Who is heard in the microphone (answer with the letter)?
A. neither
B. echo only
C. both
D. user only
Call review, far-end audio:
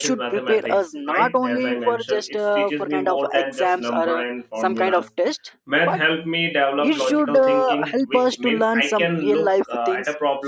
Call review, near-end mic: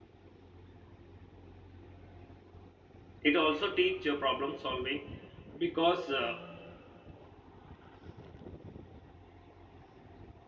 D